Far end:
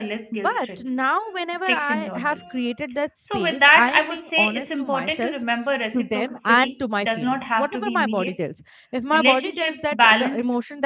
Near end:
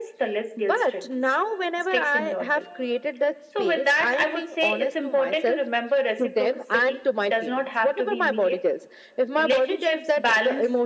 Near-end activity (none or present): none